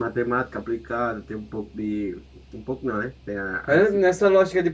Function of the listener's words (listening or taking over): taking over